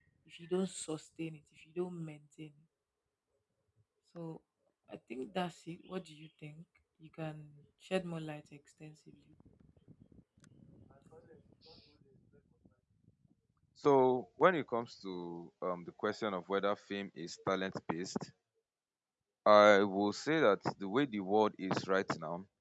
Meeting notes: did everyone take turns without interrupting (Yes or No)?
Yes